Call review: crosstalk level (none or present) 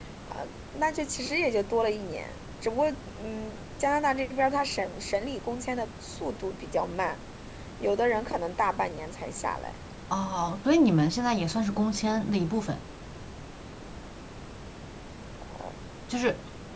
none